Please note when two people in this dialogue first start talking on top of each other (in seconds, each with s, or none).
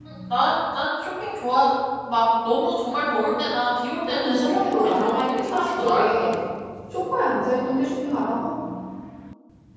4.0 s